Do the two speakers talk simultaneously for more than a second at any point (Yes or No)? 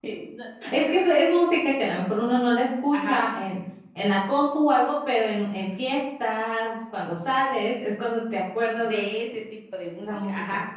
No